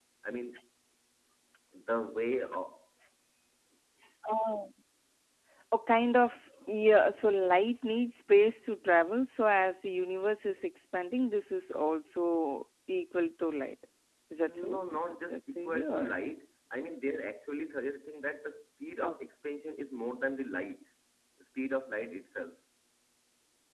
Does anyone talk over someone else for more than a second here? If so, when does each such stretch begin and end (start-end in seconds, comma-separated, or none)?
14.4-16.1